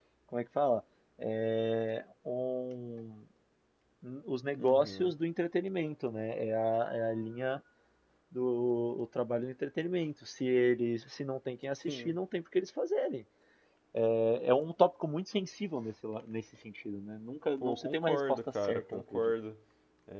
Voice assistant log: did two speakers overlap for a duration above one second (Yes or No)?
Yes